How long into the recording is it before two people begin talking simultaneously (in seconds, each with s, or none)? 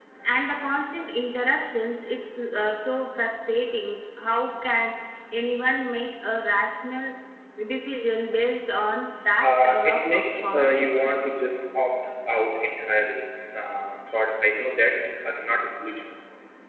9.4 s